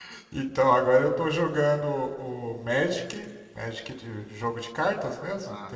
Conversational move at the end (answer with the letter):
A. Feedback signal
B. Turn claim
A